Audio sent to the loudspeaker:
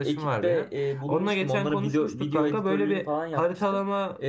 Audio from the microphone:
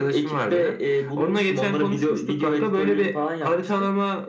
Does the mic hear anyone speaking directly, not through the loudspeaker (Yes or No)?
No